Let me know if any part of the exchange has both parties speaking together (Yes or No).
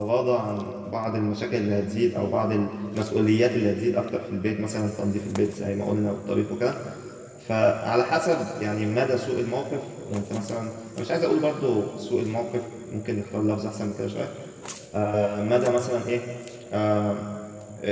No